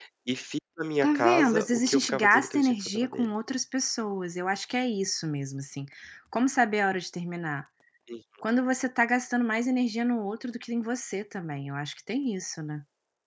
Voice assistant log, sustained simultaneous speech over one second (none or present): present